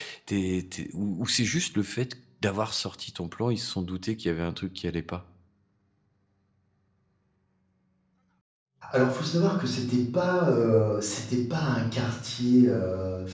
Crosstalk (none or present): none